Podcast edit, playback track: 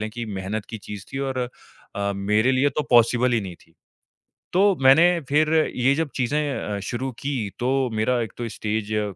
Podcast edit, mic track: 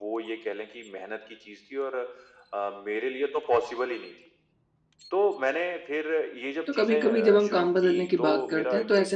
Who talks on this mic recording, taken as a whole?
both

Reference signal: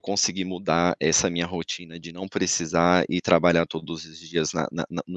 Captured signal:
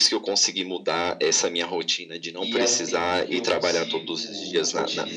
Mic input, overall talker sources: both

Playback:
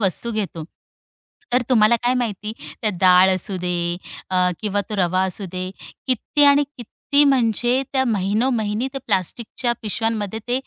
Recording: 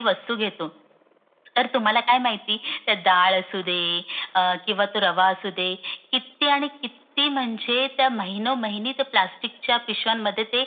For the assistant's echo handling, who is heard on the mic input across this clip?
echo only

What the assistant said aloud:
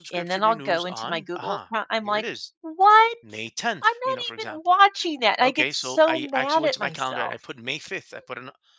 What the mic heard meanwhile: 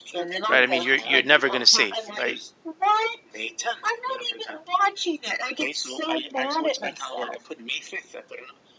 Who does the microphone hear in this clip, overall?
both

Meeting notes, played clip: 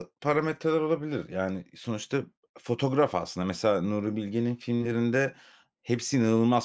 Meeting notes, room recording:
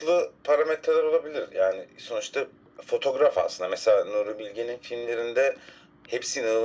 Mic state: echo only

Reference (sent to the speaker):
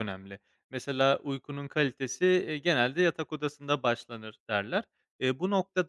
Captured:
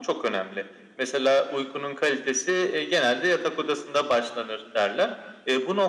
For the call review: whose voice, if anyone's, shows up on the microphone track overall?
echo only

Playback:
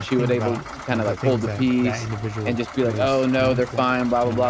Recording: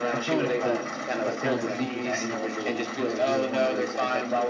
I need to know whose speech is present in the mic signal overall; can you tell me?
both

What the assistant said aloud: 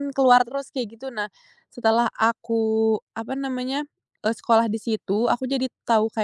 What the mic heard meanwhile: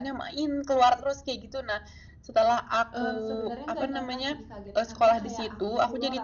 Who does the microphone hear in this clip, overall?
both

